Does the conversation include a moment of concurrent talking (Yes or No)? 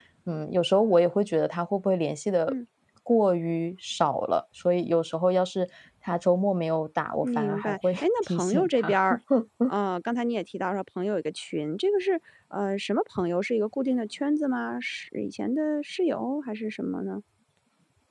Yes